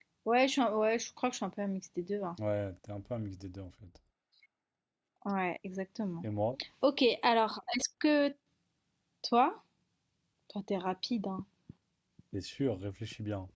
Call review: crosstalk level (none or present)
none